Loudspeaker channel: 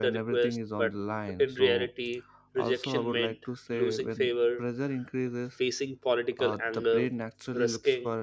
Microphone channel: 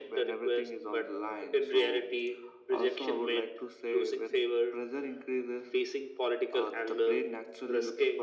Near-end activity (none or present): none